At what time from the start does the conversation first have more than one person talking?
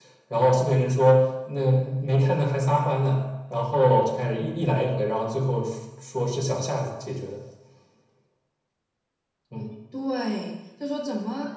none

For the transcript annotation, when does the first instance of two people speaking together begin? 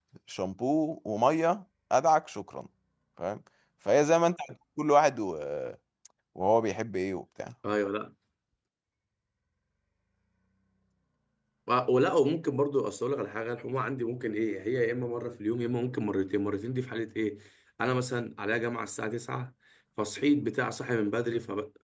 none

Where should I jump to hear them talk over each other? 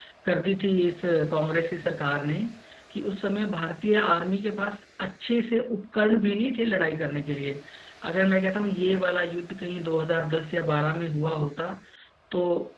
none

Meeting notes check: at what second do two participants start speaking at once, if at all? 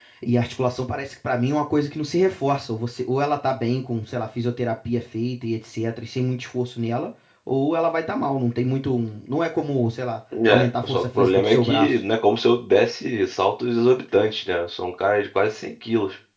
10.3 s

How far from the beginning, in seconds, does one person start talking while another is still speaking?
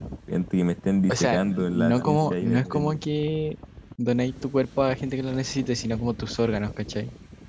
1.1 s

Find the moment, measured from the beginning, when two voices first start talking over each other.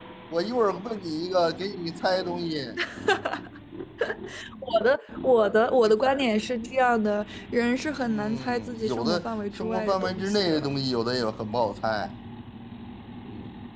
8.0 s

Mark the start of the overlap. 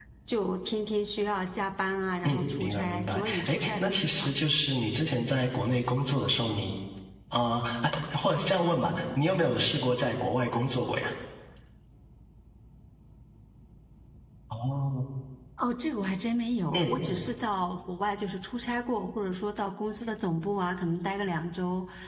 2.2 s

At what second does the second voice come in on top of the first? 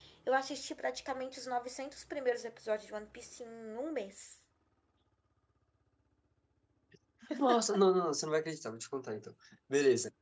none

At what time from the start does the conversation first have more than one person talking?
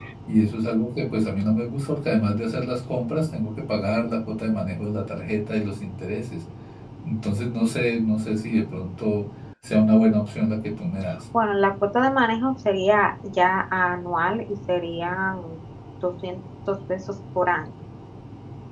none

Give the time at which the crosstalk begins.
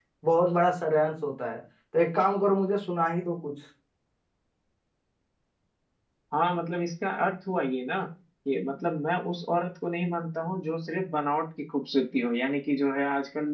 none

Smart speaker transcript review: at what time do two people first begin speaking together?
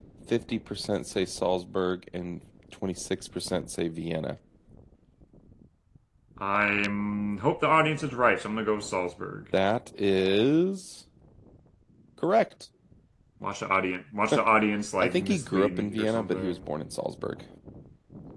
15.0 s

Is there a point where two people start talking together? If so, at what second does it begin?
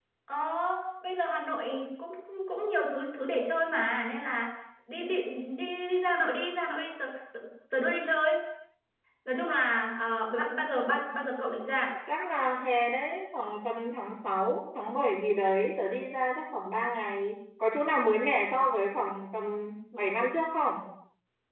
none

